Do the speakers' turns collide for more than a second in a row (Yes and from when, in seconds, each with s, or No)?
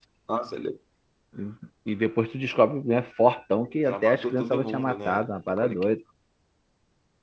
Yes, from 3.8 s